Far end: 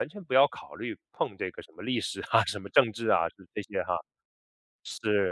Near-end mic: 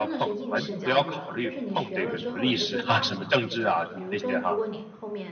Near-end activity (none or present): present